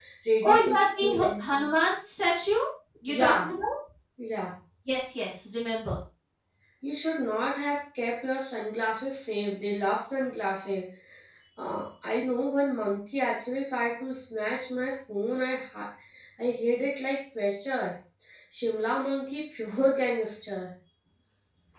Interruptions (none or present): present